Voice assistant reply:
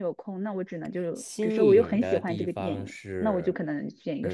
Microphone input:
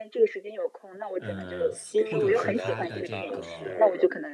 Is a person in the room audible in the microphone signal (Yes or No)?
Yes